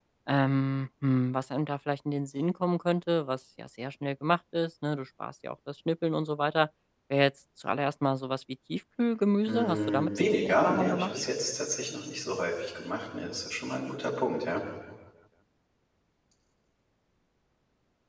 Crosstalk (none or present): present